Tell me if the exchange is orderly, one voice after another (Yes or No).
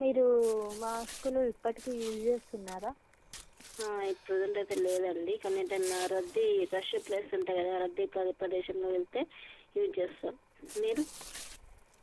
Yes